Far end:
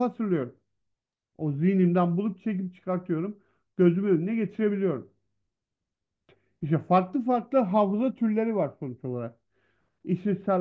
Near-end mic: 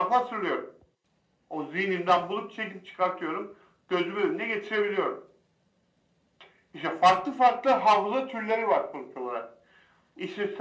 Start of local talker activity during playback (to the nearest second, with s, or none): none